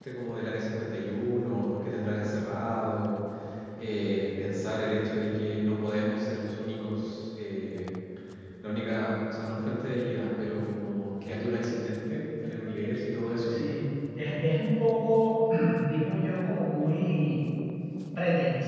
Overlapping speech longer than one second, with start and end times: none

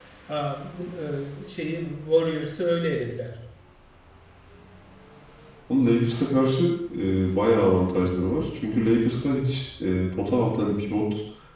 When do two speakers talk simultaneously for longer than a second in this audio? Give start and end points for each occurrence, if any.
none

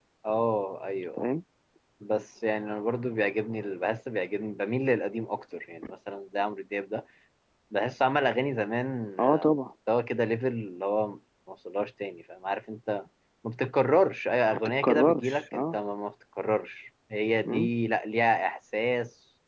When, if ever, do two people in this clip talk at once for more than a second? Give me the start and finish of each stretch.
14.5-15.8

